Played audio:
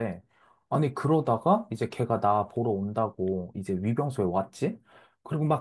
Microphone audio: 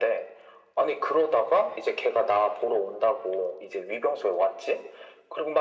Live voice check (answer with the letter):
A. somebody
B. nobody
B